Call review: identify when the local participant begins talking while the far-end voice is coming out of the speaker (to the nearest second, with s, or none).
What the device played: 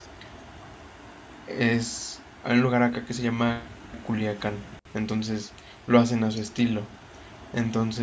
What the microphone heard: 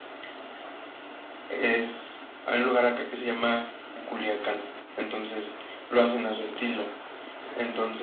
none